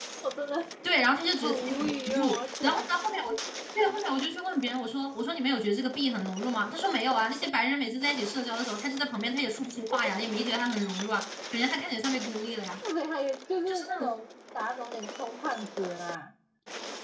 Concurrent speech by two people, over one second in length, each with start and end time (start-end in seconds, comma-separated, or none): 1.4-2.9